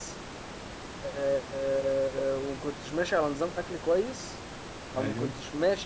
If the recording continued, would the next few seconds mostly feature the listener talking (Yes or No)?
No